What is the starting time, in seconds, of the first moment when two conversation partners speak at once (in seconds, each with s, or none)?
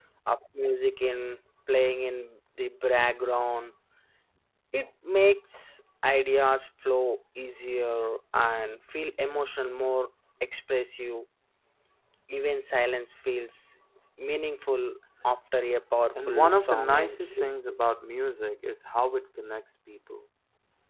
16.2 s